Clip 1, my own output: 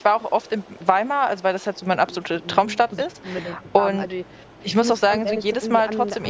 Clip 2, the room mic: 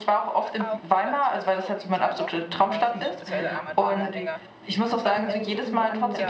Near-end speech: present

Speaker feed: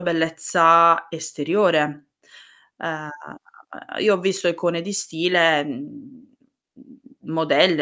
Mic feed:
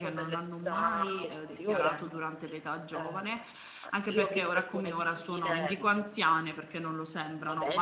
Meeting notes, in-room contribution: present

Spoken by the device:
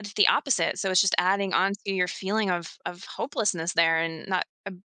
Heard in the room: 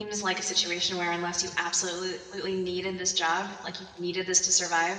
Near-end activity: present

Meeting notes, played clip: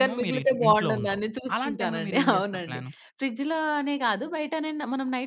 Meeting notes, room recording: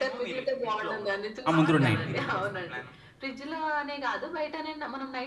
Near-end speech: present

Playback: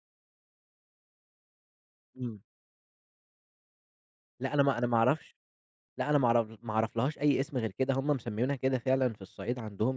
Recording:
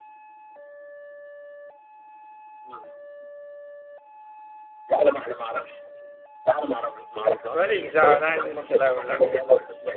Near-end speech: present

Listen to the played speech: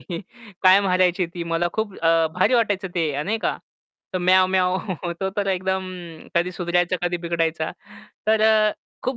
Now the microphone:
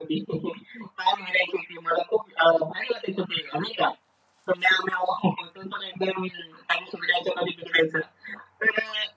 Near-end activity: none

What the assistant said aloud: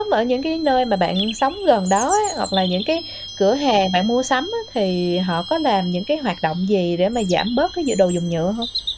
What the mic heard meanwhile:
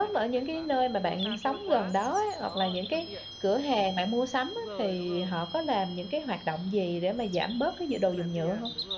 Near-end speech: present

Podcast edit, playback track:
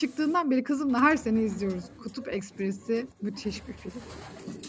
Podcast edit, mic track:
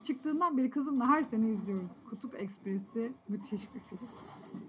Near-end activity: none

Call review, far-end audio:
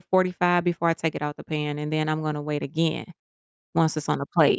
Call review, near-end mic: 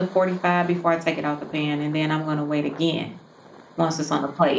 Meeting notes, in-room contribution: none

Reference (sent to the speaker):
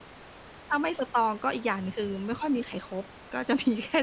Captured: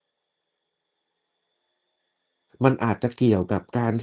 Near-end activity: present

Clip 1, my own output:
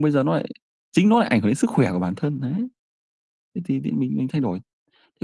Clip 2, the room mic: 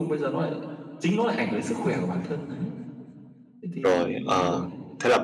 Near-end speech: present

